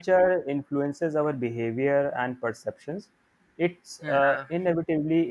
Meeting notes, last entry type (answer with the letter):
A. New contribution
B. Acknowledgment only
B